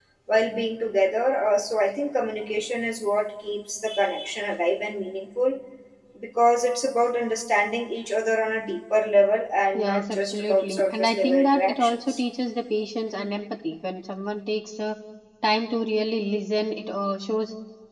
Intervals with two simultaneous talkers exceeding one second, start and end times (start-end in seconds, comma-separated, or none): 9.7-12.2